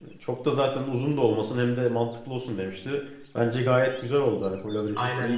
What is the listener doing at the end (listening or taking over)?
taking over